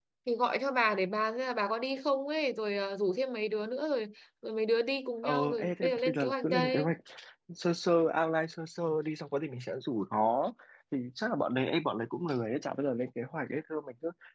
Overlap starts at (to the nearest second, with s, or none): 5 s